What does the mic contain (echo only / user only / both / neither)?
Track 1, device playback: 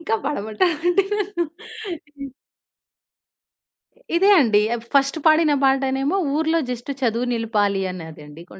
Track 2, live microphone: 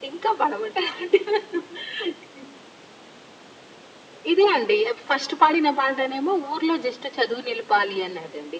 echo only